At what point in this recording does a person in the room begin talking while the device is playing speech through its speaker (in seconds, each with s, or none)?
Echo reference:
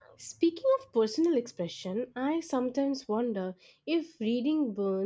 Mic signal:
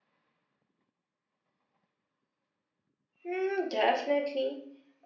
3.3 s